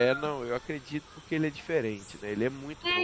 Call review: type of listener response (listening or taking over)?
taking over